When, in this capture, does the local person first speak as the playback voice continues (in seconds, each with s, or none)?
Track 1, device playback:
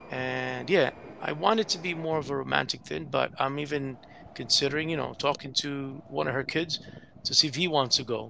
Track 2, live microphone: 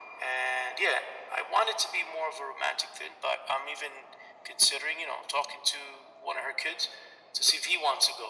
none